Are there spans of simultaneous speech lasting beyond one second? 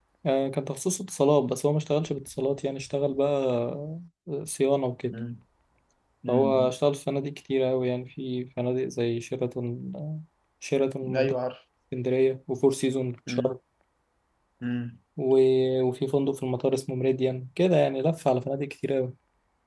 No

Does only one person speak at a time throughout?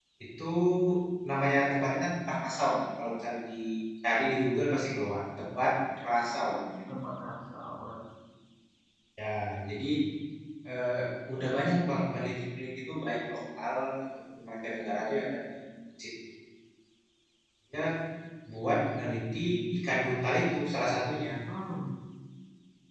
Yes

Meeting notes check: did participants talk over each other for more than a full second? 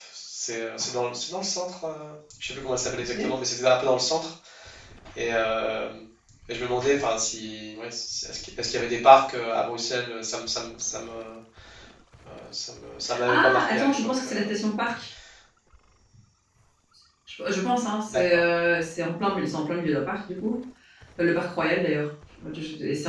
Yes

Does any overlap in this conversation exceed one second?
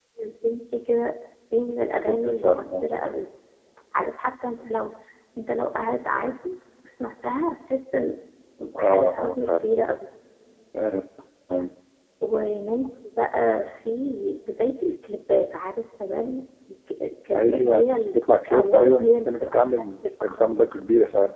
Yes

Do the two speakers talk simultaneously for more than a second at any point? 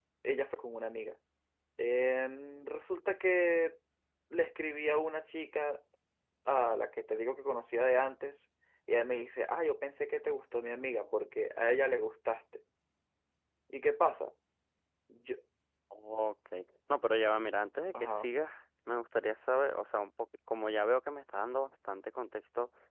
No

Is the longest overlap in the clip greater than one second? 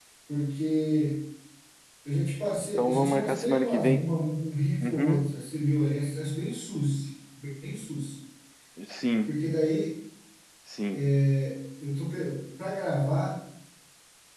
Yes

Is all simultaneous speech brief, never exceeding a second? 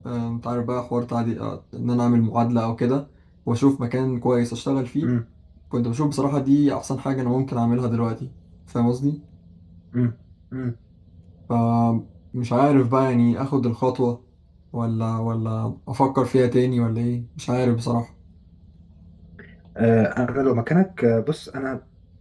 Yes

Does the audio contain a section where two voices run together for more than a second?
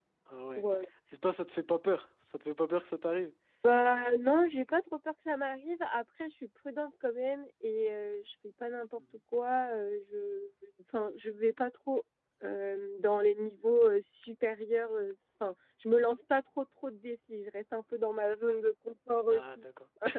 No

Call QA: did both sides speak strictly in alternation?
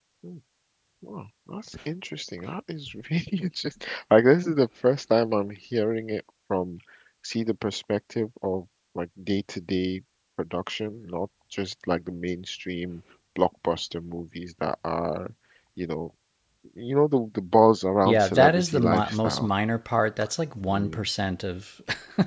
No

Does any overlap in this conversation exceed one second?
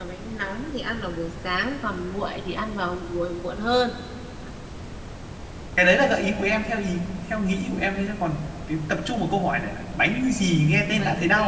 No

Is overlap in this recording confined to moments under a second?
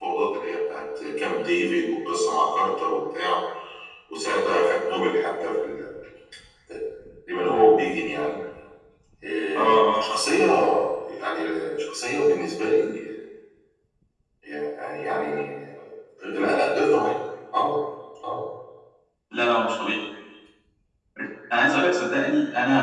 Yes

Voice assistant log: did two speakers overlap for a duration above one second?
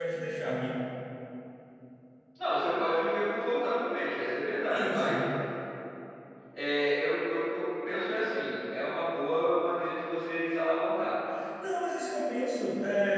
No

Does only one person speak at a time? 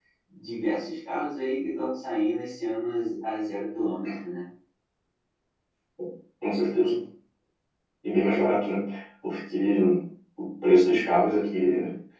Yes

